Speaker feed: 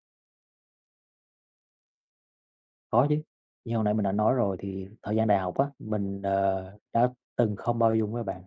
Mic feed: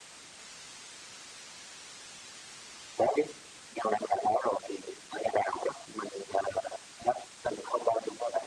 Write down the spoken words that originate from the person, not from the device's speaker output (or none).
none